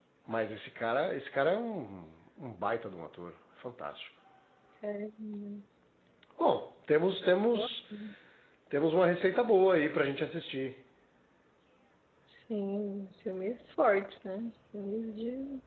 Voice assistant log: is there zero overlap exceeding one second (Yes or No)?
Yes